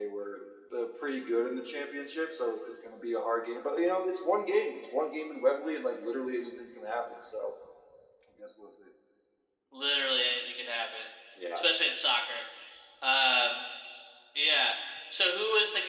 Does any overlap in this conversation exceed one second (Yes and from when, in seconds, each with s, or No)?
No